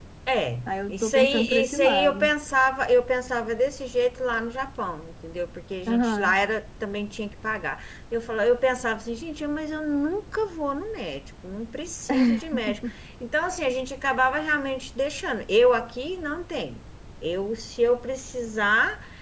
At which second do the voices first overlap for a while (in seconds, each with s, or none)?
0.7 s